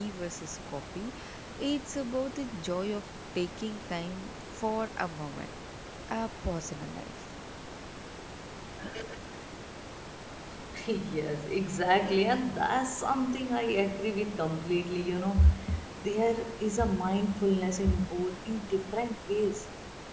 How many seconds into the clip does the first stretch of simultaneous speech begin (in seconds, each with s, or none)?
none